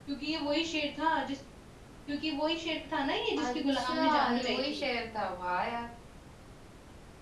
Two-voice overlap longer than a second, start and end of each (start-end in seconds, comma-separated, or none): 3.4-4.8